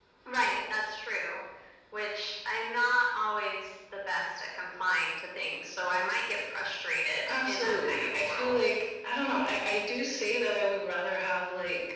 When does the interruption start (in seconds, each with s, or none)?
7.3 s